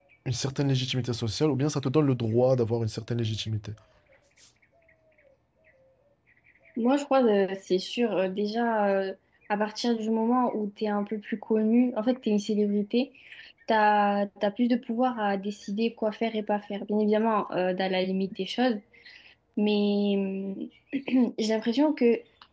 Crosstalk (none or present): none